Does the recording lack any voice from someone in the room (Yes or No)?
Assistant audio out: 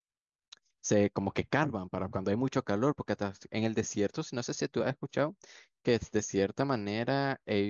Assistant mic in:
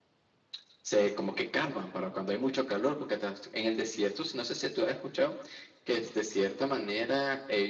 Yes